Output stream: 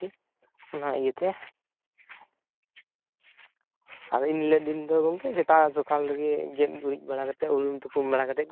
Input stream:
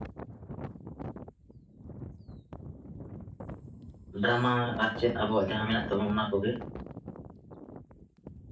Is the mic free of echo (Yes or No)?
Yes